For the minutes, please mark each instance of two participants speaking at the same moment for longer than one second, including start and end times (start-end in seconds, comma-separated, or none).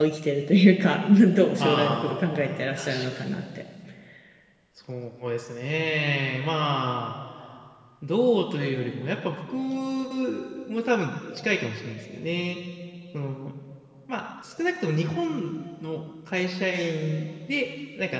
1.6-3.3